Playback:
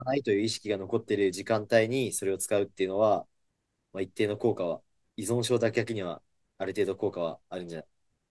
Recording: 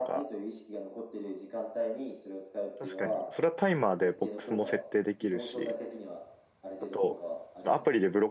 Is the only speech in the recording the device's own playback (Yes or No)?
No